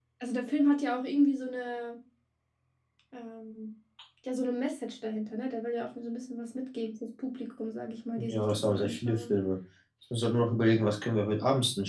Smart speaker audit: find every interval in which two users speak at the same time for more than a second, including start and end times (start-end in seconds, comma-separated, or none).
8.2-9.4